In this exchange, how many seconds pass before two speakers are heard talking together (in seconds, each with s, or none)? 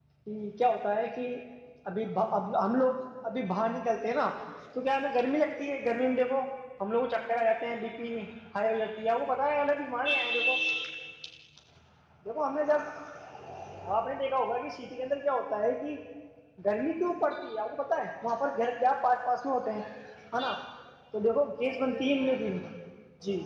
none